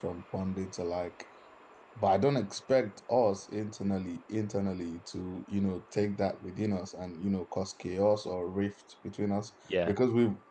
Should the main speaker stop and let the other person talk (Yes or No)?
No